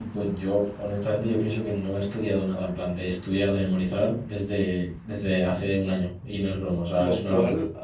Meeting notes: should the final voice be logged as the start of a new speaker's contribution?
Yes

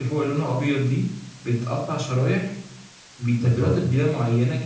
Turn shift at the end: No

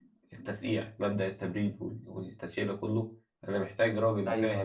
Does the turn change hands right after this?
No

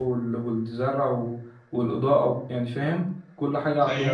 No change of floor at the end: No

